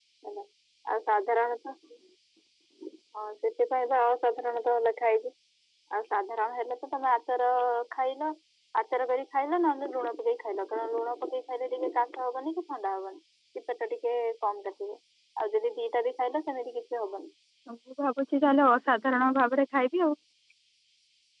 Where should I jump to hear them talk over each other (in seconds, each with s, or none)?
none